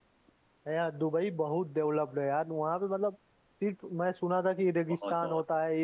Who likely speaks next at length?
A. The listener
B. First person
B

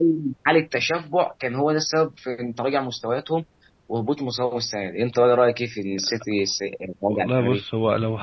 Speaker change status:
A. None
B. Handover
B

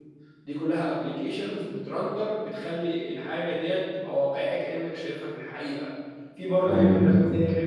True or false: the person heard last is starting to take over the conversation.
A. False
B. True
A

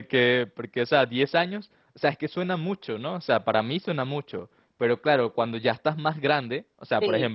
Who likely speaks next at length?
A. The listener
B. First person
B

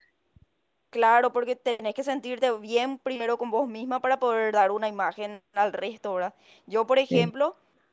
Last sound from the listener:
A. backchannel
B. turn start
A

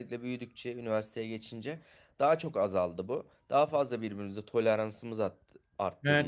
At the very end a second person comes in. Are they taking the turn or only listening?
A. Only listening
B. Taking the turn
B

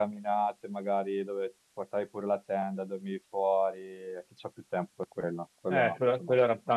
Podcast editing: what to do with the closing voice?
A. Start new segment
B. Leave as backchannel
A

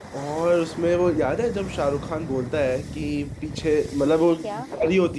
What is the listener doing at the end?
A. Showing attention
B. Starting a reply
A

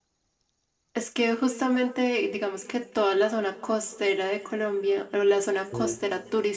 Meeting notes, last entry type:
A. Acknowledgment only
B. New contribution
A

